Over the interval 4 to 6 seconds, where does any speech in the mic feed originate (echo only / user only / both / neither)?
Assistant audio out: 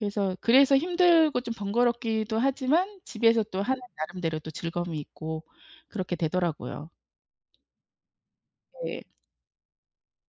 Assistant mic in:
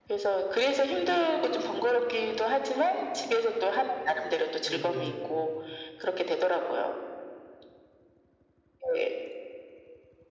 both